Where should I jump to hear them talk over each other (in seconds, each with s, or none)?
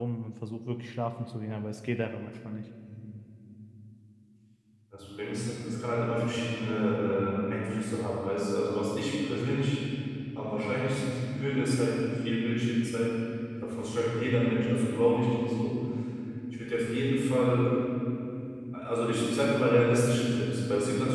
none